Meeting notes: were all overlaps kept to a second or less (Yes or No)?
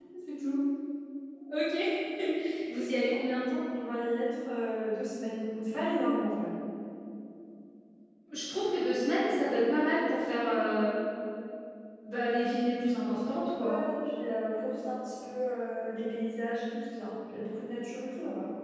Yes